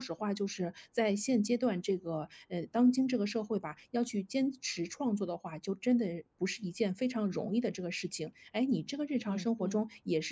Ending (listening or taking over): listening